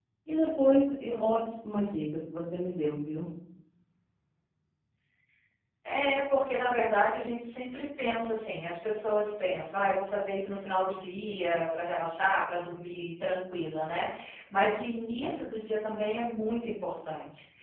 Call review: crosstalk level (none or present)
none